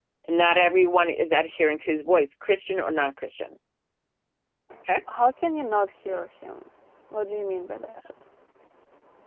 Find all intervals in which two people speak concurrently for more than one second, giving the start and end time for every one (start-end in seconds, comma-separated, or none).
none